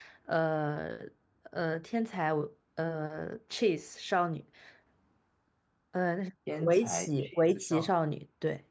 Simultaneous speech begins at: 6.5 s

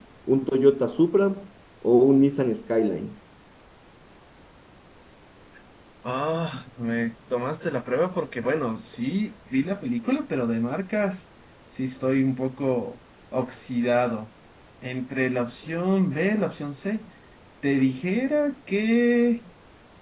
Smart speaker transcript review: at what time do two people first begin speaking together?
none

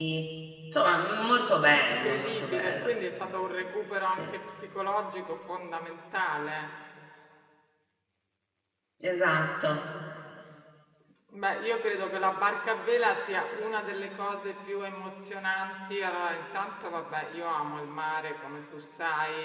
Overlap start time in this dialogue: 1.6 s

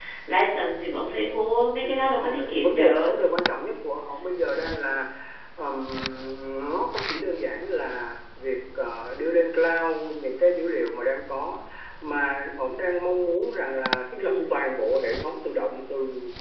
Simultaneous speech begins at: 1.8 s

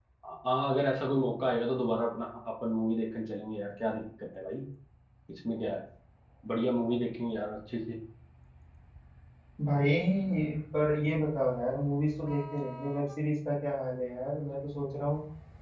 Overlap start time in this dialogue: none

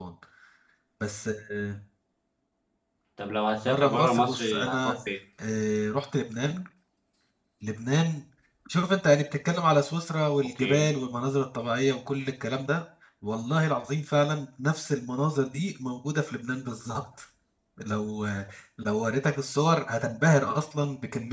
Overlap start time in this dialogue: 3.7 s

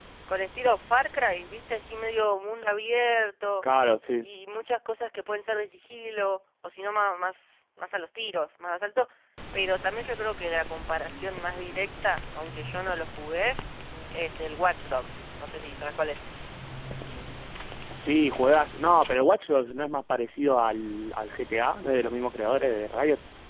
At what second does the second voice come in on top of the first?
none

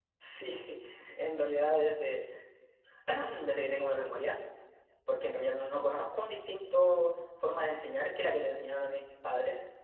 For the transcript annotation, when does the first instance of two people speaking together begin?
none

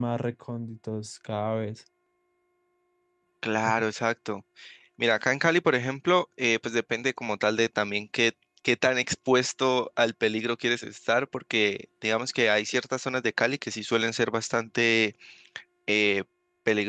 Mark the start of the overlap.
none

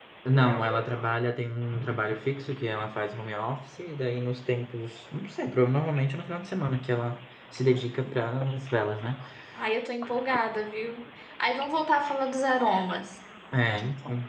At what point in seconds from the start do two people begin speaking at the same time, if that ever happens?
none

